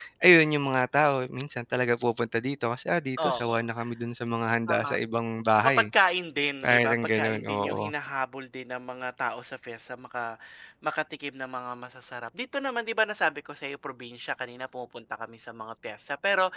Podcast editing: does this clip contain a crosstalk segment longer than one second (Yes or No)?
Yes